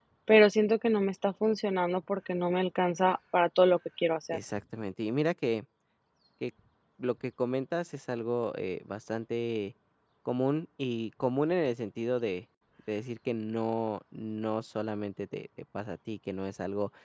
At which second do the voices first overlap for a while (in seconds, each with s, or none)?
none